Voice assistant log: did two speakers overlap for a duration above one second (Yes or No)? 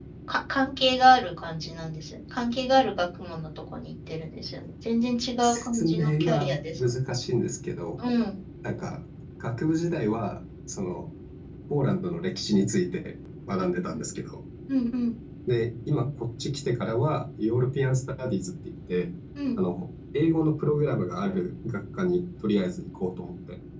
Yes